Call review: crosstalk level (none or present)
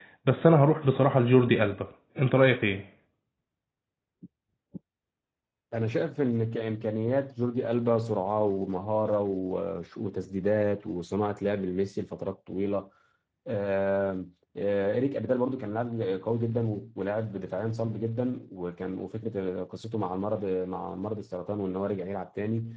none